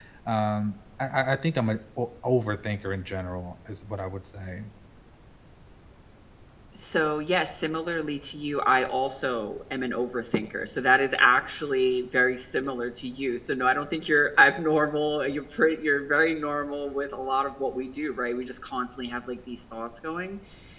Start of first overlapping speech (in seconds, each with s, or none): none